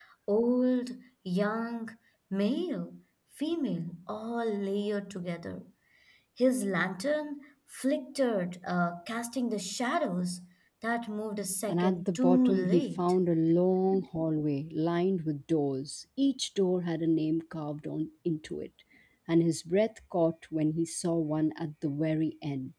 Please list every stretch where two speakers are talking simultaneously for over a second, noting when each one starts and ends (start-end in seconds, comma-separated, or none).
11.7-13.1